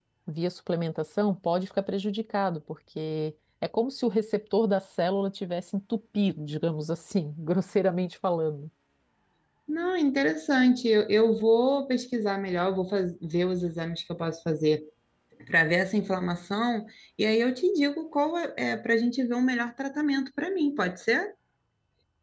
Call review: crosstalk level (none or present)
none